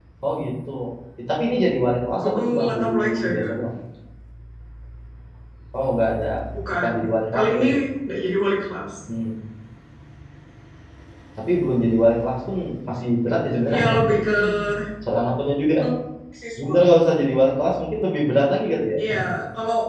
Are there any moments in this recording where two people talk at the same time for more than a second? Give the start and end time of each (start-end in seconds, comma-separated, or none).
2.2-3.7